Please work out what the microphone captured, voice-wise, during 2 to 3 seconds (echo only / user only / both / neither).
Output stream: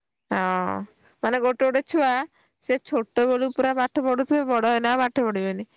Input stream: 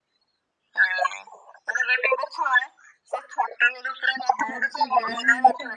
echo only